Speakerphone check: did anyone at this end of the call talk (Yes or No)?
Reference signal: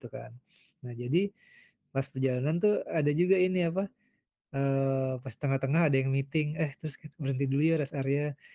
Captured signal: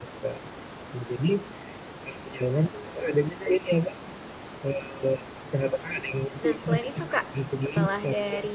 Yes